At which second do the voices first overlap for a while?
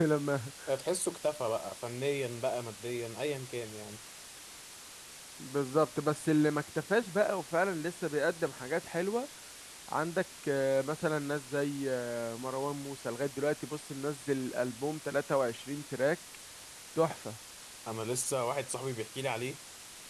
none

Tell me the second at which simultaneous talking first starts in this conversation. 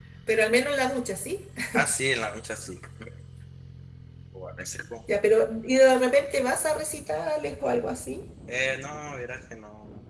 none

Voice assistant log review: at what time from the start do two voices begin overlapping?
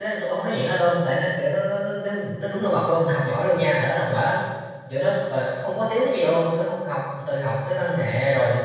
none

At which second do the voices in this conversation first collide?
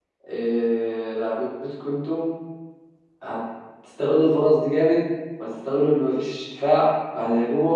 none

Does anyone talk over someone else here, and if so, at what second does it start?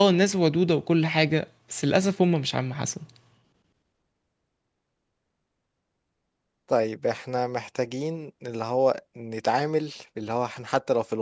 none

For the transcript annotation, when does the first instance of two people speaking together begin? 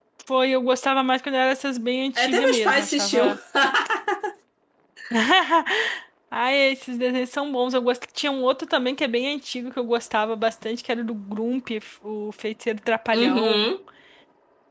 2.1 s

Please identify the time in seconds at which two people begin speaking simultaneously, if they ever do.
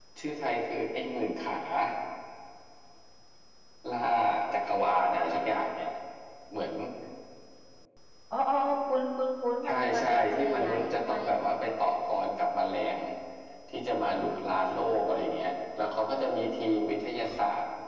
9.6 s

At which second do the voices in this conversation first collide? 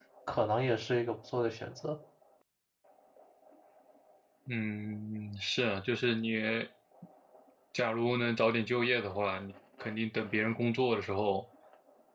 none

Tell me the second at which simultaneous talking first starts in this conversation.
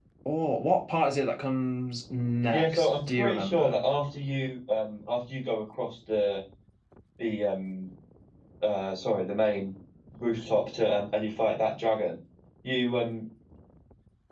2.5 s

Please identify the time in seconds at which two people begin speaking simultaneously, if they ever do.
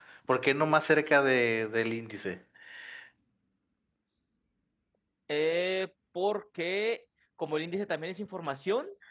none

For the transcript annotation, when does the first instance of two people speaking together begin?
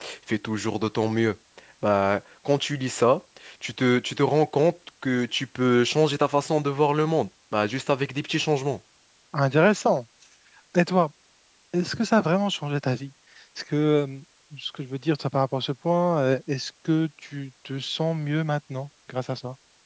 none

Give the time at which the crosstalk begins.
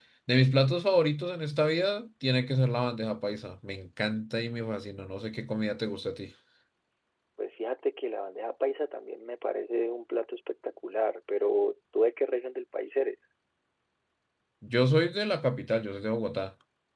none

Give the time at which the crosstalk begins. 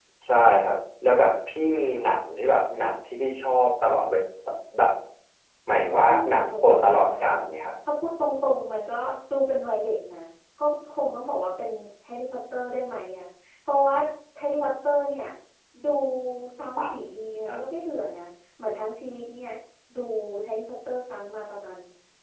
6.1 s

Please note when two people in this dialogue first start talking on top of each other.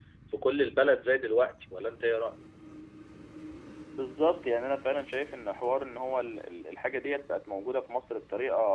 none

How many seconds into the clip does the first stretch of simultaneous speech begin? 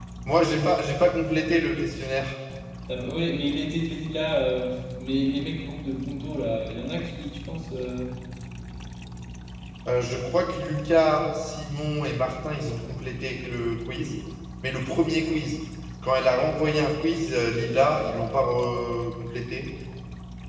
none

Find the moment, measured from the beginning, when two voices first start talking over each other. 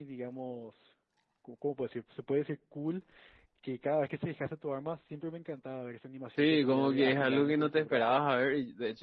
6.4 s

